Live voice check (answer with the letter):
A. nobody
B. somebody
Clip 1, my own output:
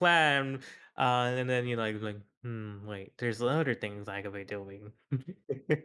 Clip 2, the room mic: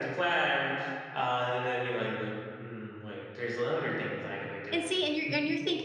B